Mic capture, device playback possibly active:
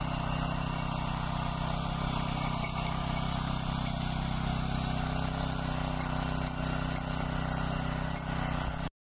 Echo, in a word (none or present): none